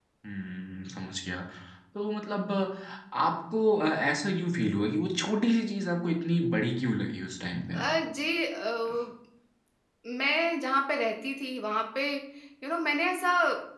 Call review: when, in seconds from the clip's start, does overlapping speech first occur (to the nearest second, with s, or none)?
none